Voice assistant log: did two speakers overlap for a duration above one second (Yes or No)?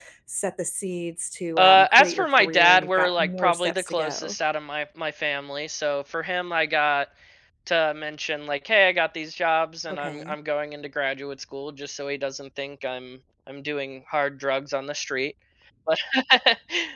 Yes